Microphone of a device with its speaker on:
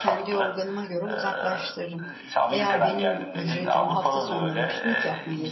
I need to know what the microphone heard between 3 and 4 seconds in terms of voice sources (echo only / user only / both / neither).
both